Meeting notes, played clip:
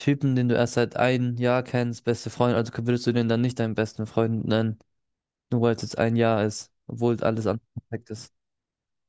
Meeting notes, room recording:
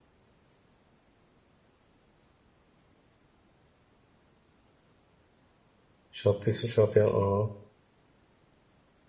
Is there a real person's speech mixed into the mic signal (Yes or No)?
Yes